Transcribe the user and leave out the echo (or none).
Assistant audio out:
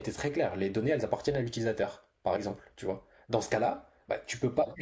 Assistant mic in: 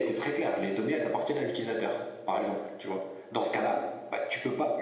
none